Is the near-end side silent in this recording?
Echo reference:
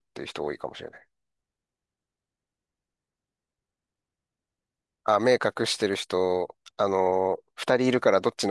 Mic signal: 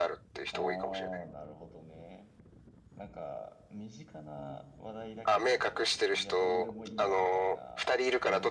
No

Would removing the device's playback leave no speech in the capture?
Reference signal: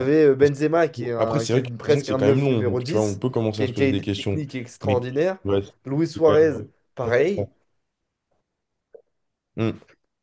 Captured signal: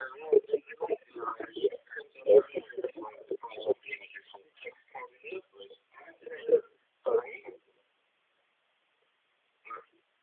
Yes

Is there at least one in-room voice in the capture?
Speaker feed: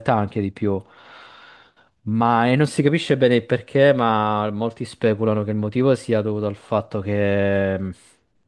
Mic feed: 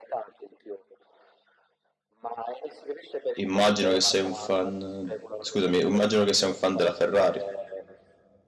Yes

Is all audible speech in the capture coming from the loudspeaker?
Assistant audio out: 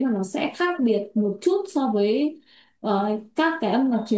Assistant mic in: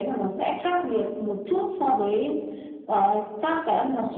Yes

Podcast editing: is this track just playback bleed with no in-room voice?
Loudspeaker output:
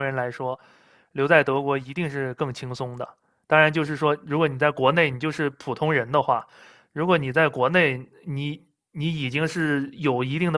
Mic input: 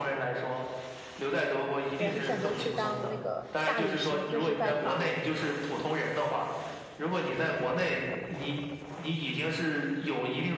No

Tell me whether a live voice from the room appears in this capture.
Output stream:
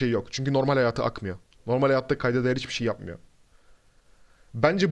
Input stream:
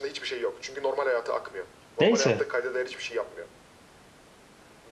Yes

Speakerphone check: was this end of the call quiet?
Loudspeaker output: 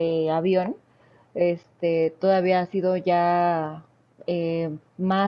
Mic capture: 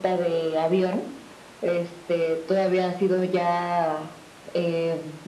Yes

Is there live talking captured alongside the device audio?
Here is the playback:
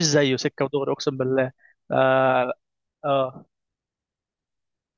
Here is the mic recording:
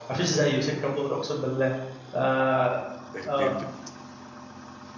Yes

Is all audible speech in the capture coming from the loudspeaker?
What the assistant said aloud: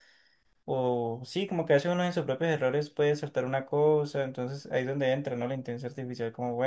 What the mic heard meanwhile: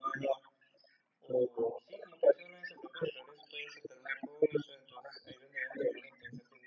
Yes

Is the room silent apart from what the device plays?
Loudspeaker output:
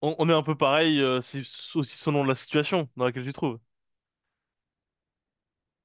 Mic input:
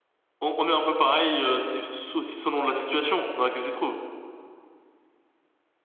Yes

